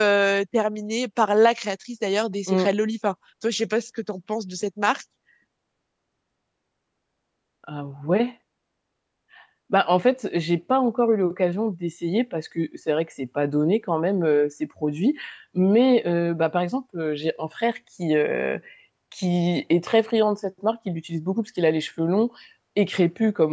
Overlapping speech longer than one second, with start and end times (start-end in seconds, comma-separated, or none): none